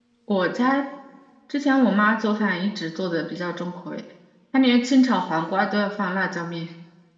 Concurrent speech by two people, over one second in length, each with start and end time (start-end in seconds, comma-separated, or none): none